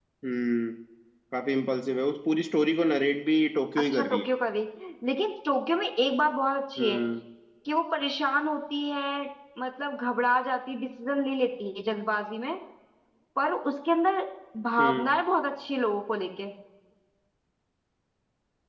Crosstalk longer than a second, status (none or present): none